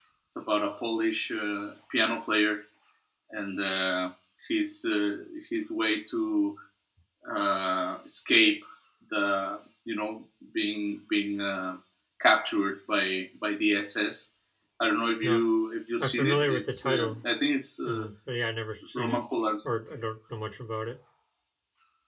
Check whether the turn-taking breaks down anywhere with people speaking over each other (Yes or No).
Yes